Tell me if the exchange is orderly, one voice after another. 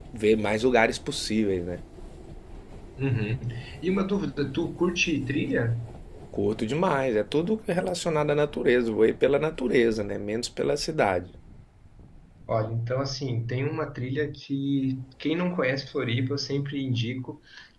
Yes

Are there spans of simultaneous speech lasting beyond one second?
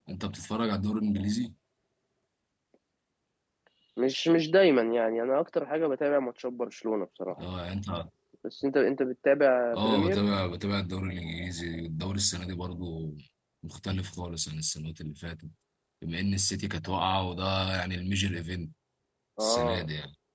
No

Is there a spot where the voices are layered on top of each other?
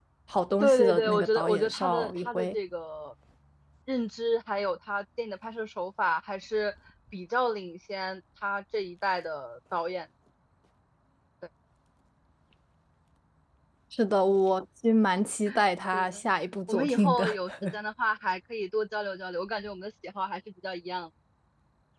Yes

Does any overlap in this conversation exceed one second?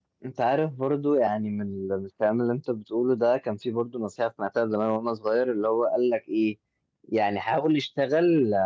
No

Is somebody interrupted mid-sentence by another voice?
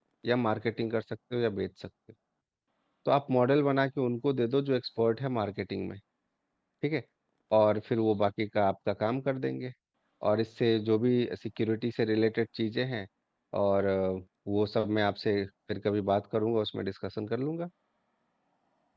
No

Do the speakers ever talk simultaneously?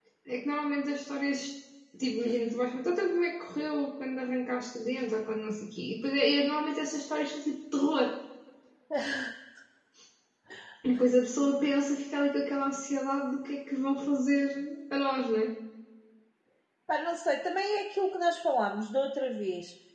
No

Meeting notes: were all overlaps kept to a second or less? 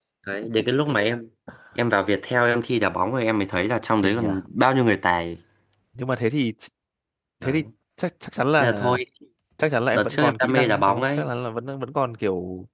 No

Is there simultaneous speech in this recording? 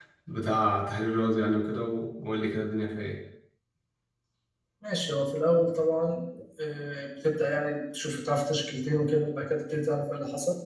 No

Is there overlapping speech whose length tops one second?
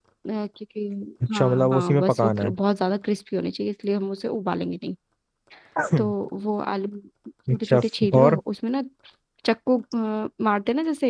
Yes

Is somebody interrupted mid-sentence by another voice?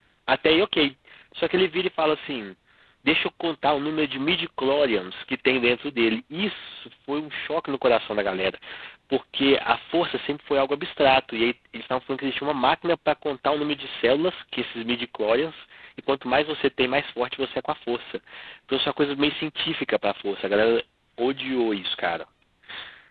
No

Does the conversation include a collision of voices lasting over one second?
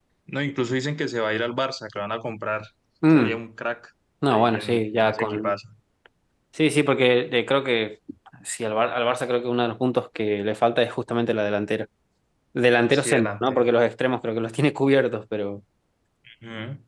Yes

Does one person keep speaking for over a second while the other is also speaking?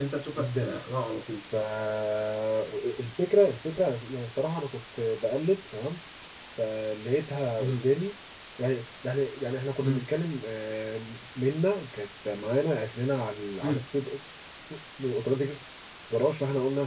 No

